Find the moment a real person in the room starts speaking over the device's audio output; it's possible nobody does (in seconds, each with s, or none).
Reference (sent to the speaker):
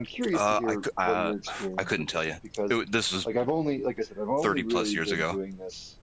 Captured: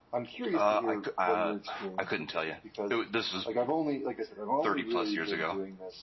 none